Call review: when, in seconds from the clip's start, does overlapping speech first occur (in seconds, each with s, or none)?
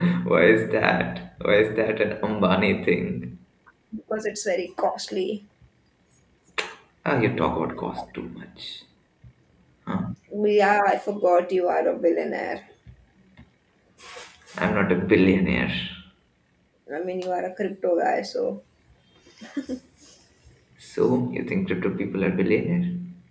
none